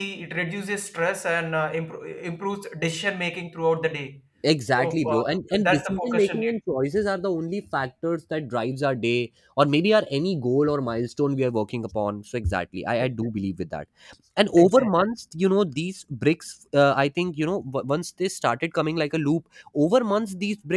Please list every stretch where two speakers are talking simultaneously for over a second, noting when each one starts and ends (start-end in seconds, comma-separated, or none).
4.8-6.5